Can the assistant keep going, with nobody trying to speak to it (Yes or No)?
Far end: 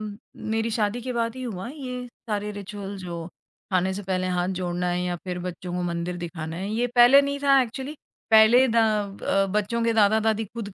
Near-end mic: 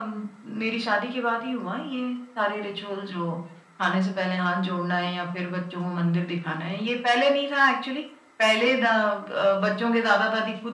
Yes